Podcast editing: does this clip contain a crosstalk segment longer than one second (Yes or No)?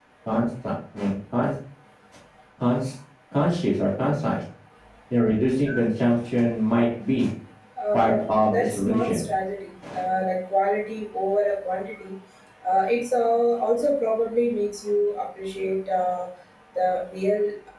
Yes